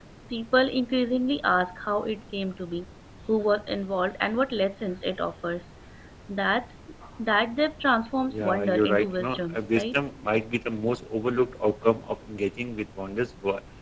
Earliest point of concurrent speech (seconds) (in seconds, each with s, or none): 8.3 s